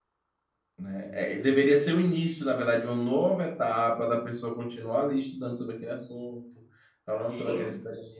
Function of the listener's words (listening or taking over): listening